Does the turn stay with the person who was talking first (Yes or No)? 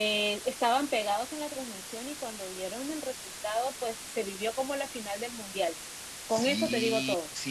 No